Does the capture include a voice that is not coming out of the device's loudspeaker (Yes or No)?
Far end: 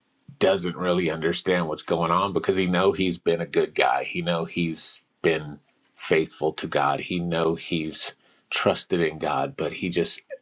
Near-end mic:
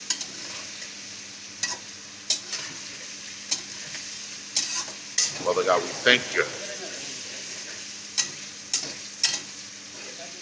Yes